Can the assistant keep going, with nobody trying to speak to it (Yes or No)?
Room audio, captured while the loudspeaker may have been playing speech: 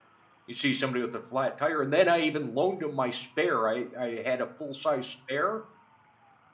No